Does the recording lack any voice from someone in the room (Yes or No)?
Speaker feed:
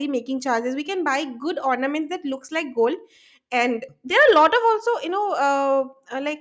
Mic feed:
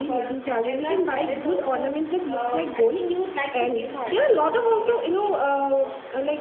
No